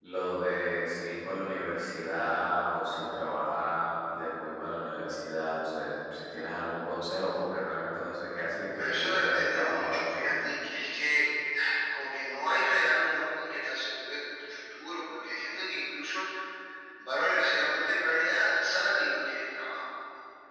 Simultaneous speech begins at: 9 s

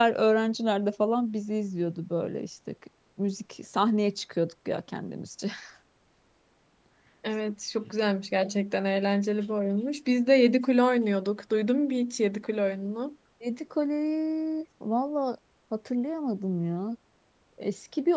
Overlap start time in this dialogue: none

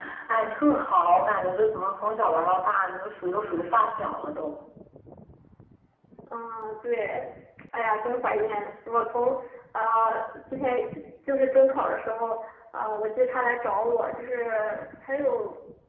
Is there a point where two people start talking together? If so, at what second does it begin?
none

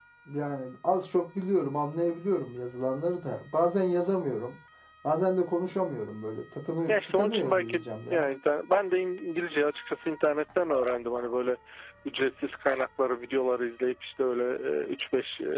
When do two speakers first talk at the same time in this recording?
7 s

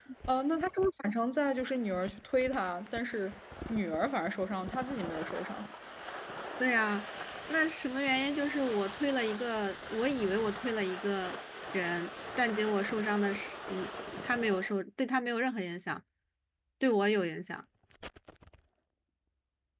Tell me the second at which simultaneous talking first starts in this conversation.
none

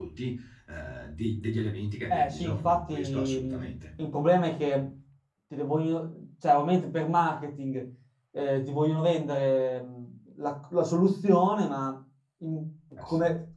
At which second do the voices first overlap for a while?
2 s

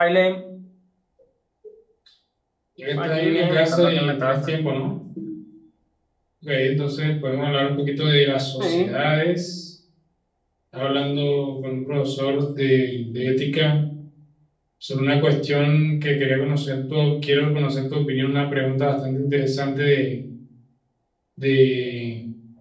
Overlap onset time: 3 s

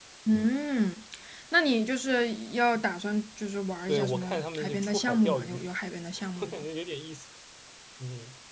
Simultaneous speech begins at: 4 s

